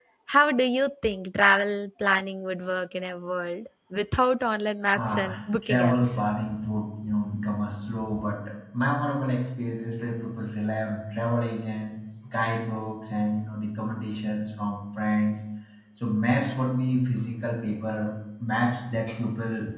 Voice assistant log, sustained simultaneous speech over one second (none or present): present